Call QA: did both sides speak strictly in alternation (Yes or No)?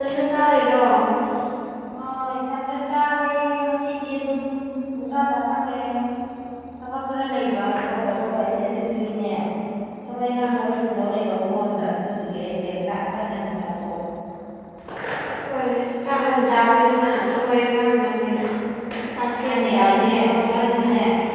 No